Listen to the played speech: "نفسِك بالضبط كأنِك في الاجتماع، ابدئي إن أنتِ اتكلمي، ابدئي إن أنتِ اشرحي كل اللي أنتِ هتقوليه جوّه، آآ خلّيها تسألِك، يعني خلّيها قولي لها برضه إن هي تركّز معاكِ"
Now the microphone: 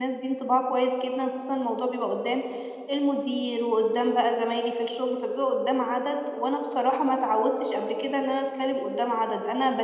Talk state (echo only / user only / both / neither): user only